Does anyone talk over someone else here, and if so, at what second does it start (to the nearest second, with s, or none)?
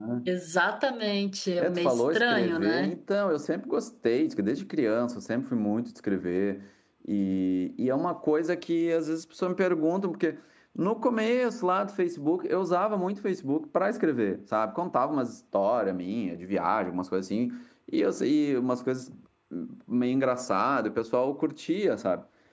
2 s